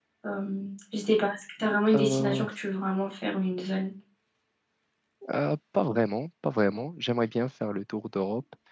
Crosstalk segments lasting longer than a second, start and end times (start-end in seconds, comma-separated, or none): none